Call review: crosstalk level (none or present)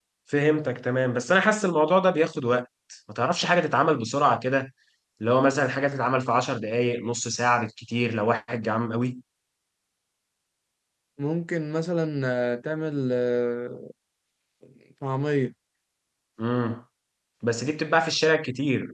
none